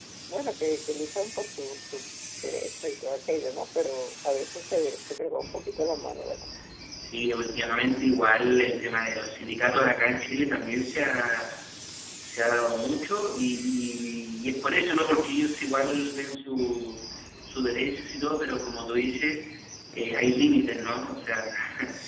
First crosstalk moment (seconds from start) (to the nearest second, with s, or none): none